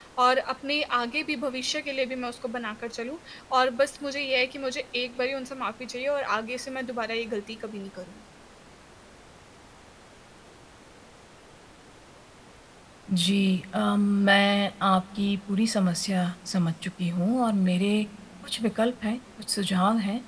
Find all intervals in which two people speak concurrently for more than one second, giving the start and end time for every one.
none

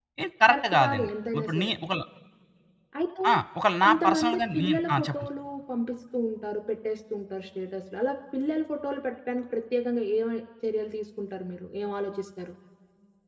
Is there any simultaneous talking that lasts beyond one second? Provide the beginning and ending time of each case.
0.5-1.7, 3.8-5.2

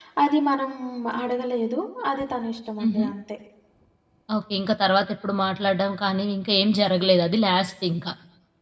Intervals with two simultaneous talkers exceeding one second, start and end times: none

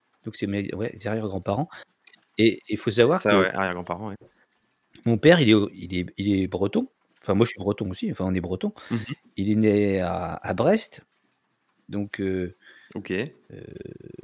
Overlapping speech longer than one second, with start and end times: none

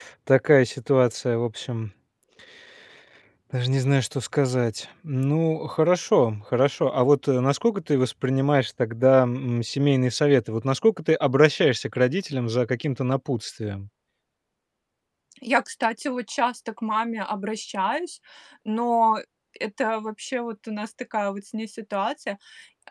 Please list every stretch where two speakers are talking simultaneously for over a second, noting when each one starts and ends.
none

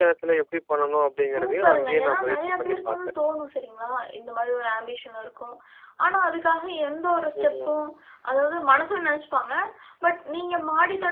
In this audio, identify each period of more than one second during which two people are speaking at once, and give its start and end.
1.3-3.0

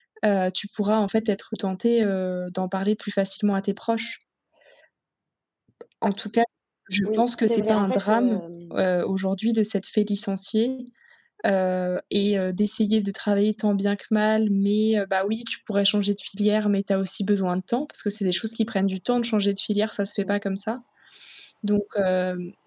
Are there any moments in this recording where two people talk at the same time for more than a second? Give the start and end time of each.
7.0-8.4

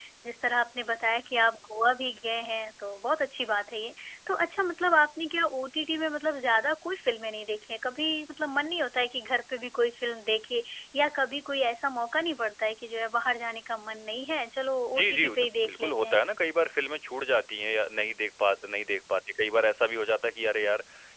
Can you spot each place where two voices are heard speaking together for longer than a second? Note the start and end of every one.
14.9-16.2

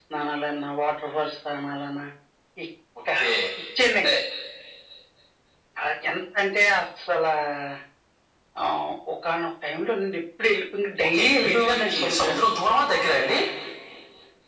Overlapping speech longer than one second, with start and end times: 11.1-12.4

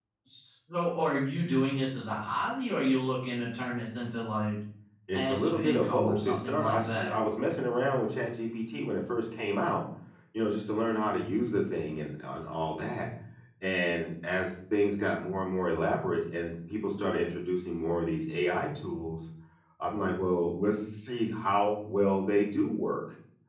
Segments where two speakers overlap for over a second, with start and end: 5.1-7.2

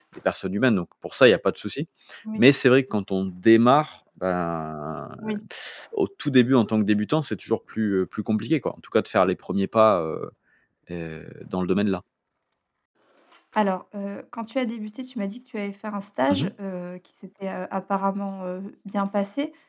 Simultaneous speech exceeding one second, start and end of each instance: none

